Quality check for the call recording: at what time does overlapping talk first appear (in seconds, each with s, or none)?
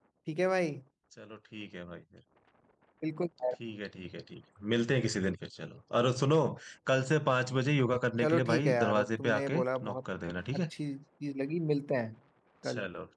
8.2 s